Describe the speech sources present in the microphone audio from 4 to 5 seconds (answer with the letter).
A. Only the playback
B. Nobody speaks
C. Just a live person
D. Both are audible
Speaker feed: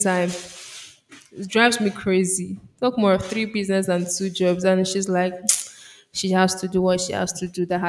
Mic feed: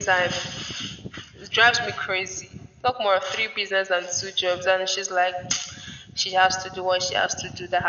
A